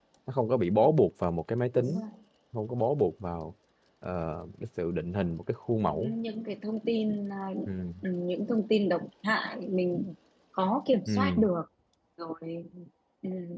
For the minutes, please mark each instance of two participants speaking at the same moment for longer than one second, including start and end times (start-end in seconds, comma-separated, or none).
none